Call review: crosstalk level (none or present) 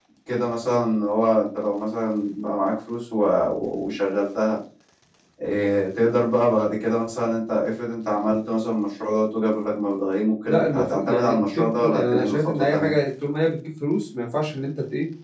present